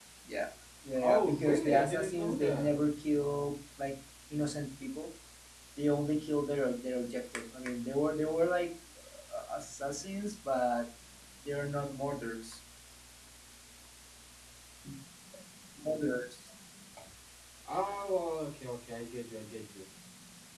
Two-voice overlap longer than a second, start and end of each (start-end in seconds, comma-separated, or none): 1.0-2.9